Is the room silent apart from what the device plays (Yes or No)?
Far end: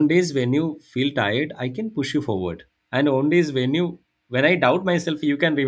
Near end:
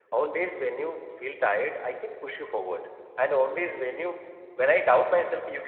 Yes